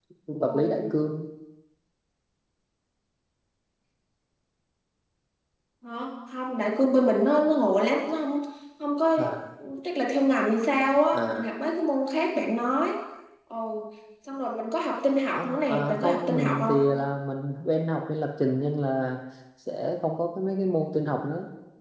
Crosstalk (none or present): present